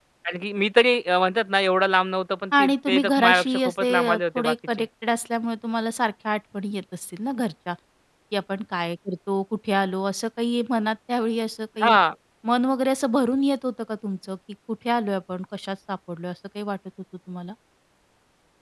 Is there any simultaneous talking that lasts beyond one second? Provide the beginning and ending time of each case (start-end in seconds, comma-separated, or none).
2.6-4.8